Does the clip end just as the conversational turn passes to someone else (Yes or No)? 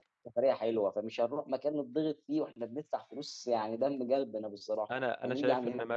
Yes